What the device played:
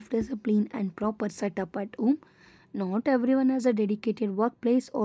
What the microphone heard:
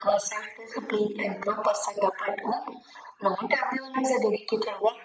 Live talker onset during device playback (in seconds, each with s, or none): none